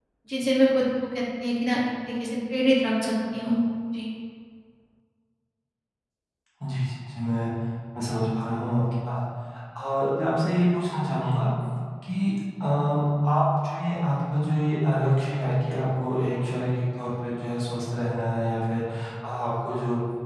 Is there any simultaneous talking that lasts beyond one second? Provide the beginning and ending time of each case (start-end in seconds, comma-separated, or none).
none